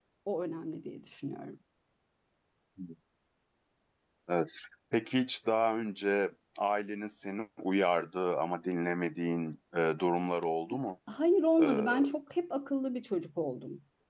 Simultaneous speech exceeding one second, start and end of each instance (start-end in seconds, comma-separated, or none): none